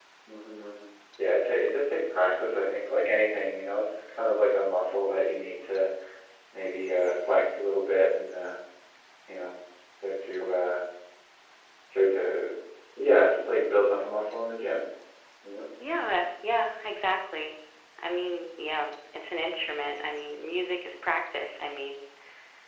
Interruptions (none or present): none